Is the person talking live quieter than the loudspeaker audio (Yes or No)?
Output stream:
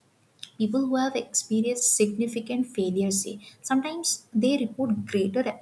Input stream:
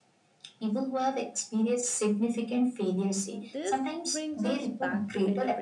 Yes